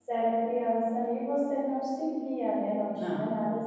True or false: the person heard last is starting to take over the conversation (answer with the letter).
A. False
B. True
A